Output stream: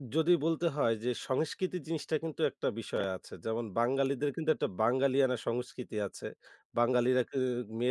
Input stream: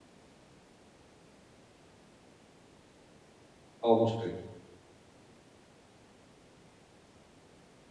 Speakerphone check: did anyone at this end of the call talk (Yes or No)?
Yes